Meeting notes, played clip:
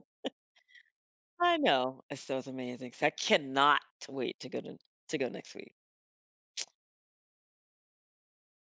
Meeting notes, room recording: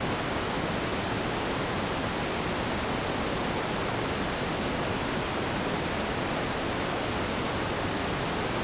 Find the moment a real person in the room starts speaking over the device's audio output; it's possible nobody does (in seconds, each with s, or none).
none